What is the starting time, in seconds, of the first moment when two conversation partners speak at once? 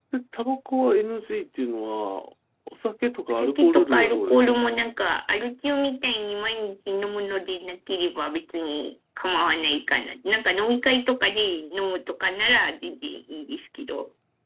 3.3 s

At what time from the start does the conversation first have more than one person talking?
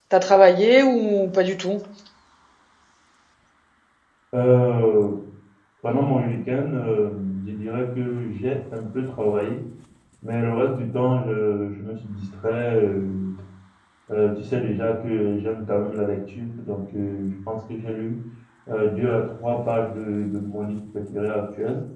none

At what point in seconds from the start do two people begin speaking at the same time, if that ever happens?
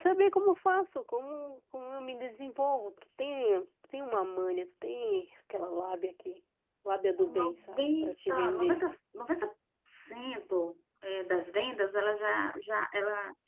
7.4 s

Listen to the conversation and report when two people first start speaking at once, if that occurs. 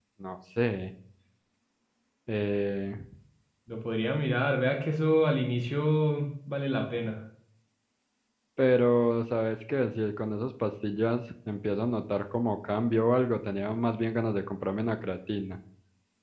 none

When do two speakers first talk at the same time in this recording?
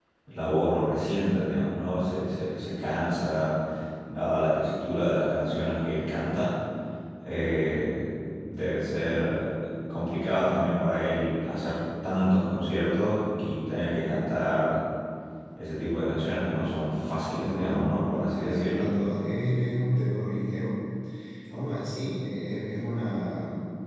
17.4 s

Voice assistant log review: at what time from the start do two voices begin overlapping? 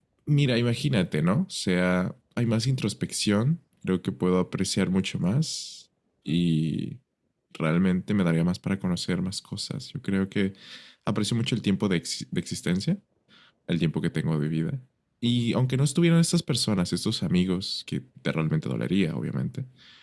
none

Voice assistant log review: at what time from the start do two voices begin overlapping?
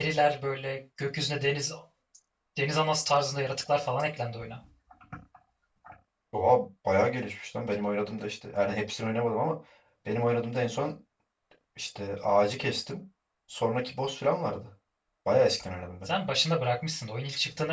none

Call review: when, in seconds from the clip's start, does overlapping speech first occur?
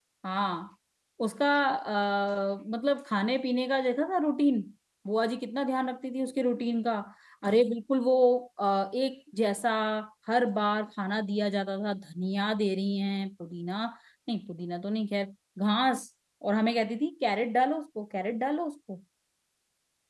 none

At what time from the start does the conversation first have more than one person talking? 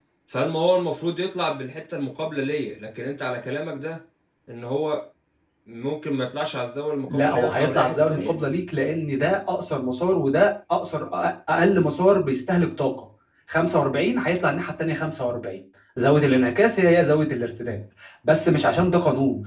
7.1 s

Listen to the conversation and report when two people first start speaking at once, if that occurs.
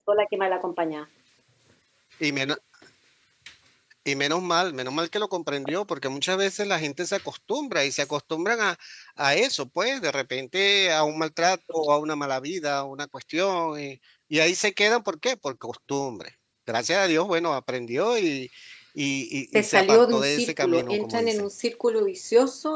19.5 s

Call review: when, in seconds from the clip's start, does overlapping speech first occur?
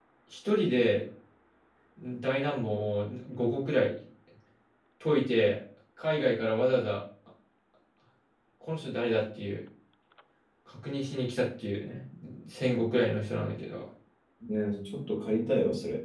none

